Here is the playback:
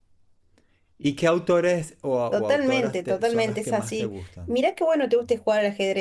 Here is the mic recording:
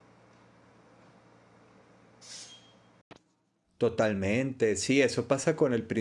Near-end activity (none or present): present